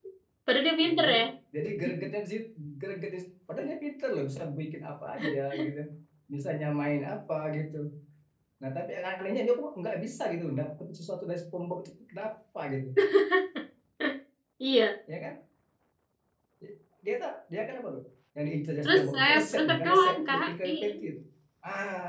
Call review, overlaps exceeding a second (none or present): present